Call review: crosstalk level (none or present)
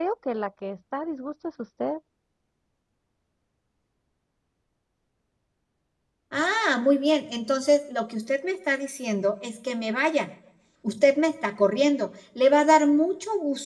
none